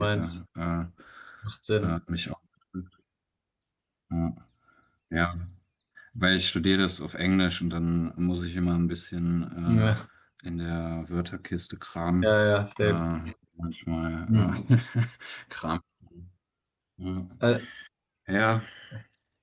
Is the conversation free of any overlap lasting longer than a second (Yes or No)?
Yes